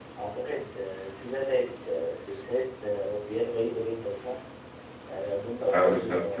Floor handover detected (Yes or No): No